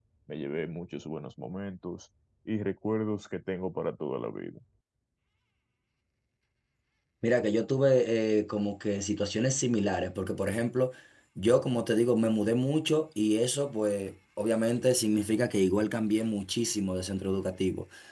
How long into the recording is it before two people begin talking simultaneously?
none

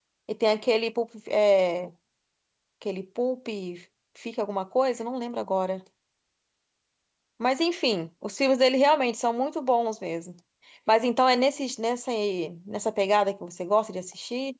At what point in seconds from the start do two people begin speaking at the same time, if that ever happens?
none

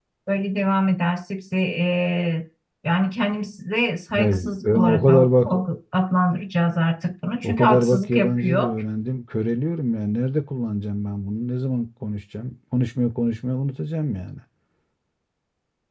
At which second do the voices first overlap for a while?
4.1 s

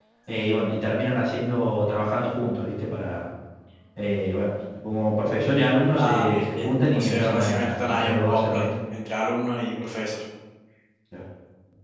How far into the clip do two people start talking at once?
5.9 s

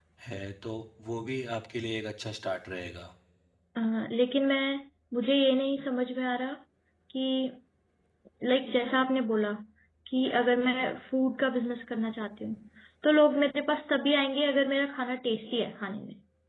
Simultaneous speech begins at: none

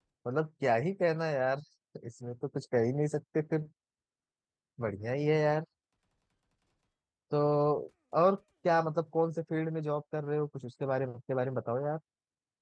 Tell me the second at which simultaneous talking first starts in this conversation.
none

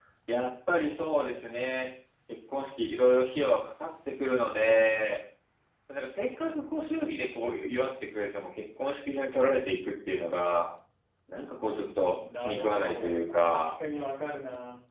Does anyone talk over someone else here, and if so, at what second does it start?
12.2 s

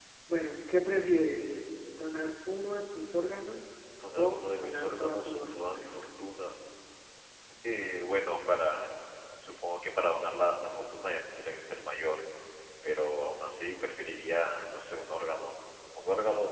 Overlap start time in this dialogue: 4.0 s

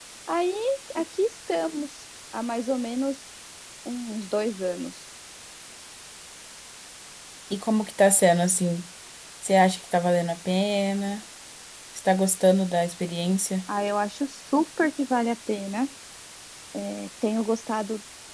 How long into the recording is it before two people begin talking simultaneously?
none

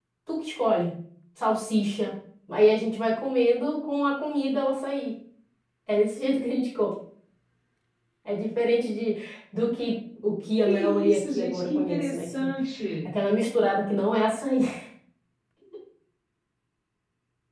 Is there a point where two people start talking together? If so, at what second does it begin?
10.7 s

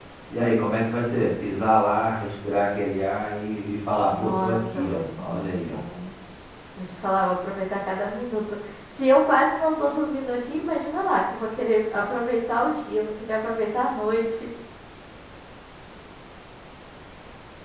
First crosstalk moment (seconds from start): 4.1 s

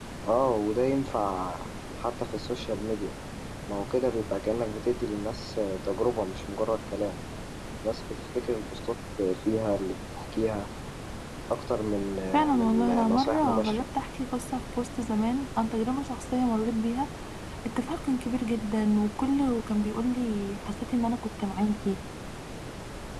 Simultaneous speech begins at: 12.6 s

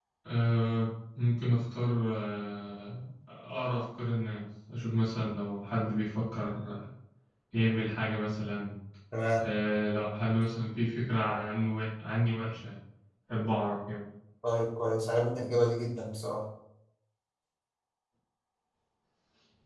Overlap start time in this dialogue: none

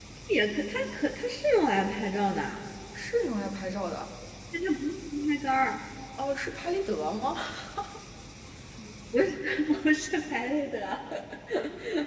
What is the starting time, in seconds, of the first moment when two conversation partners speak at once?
none

